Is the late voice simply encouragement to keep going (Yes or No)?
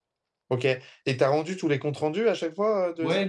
No